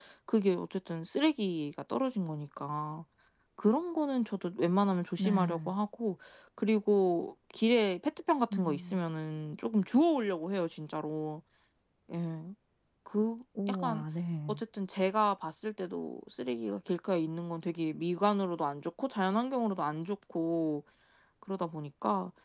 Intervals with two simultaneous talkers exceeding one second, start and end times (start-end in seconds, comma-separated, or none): none